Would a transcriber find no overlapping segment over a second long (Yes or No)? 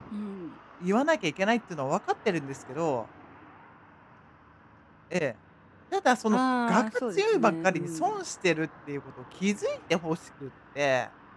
No